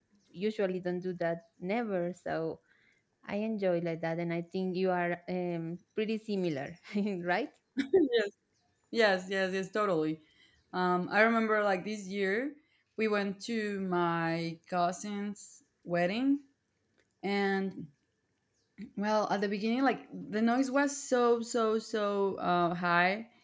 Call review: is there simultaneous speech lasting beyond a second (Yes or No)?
No